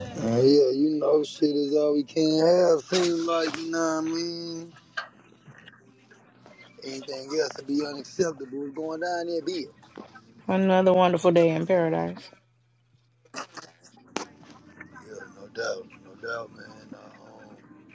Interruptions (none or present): none